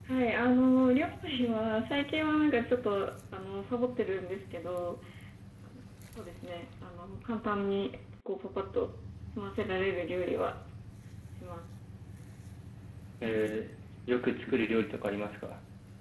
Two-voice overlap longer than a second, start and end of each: none

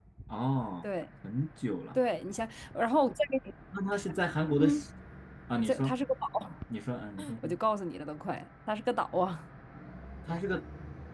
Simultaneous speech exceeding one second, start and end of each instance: none

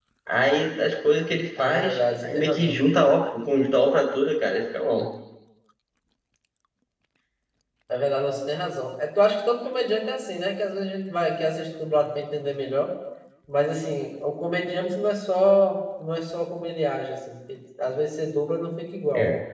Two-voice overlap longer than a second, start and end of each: 1.6-2.9

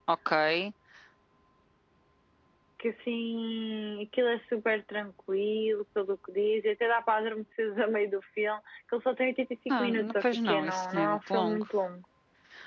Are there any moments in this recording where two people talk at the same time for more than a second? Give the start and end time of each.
9.8-11.6

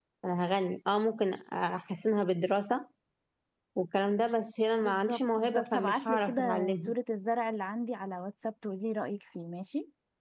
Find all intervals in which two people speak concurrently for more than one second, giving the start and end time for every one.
4.8-6.9

